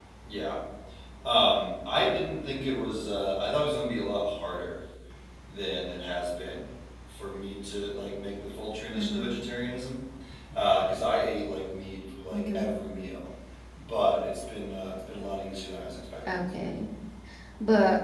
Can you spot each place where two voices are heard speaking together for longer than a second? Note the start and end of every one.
none

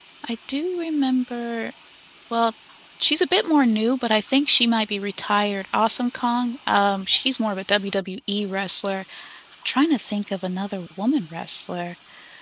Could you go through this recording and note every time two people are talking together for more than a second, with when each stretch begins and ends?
none

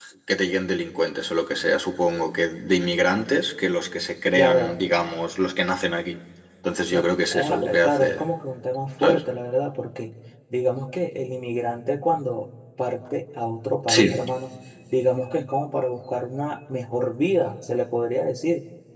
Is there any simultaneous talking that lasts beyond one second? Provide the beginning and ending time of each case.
6.9-8.3

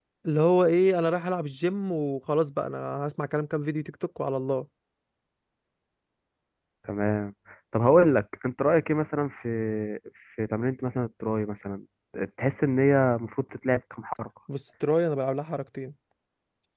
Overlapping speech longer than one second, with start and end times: none

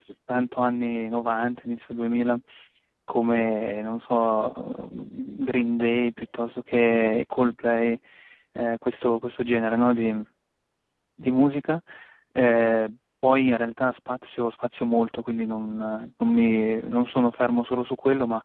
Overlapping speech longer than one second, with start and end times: none

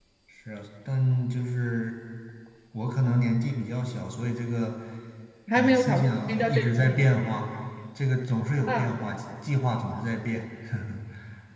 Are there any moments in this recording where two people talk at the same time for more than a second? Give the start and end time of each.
5.5-7.0

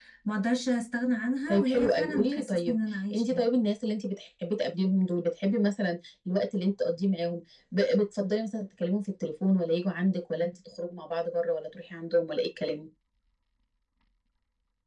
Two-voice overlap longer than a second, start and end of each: 1.5-2.8

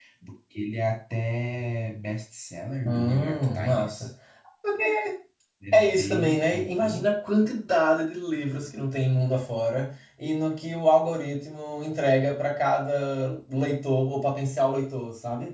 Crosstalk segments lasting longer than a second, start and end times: 2.9-4.1, 5.7-7.1

